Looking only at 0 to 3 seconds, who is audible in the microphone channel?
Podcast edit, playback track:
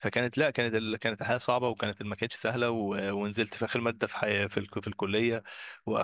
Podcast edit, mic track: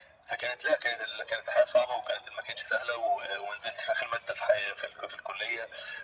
echo only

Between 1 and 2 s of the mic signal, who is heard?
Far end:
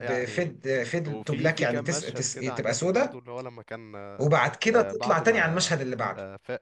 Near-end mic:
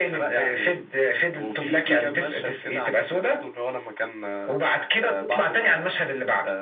echo only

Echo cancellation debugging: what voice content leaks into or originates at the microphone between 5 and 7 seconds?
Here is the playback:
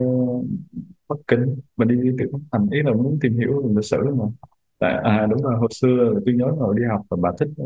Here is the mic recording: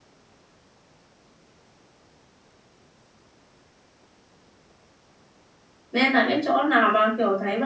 user only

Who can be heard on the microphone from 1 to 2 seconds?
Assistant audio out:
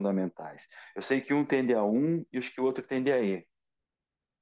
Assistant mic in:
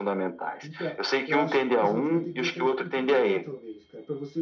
both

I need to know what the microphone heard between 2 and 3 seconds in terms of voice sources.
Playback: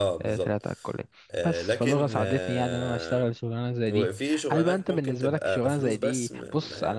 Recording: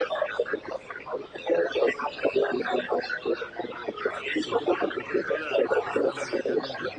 echo only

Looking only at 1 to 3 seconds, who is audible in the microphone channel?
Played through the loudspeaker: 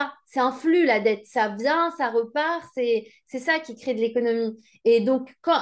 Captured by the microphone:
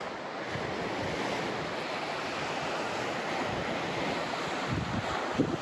neither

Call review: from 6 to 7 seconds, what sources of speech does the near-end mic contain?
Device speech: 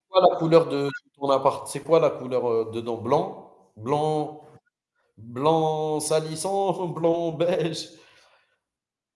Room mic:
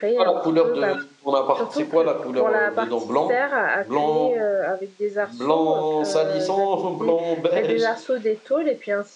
both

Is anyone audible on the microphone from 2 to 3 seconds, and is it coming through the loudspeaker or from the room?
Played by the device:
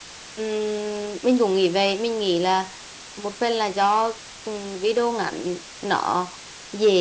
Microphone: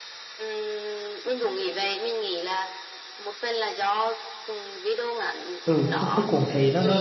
echo only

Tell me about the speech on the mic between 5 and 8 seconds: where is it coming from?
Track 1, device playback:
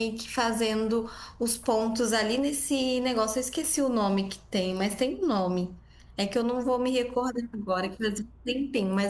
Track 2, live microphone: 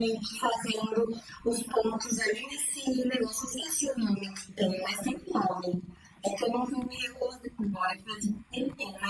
echo only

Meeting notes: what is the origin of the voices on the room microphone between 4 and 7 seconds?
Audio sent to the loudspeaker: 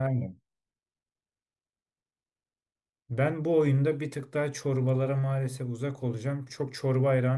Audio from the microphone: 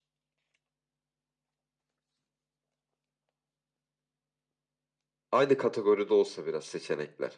user only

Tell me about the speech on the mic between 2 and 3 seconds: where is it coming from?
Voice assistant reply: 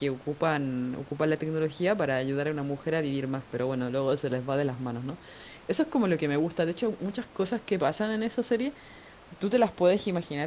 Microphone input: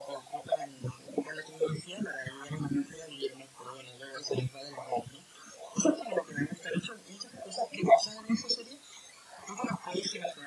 echo only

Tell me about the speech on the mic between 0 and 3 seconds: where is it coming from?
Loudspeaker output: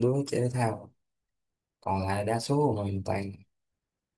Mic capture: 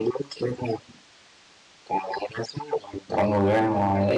echo only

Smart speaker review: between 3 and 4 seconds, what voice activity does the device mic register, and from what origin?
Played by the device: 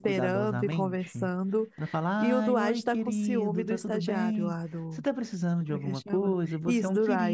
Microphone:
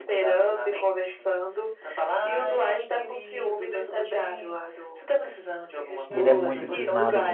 echo only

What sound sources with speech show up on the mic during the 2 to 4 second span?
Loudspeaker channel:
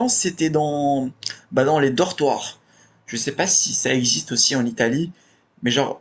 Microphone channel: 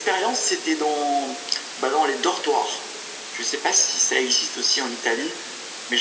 echo only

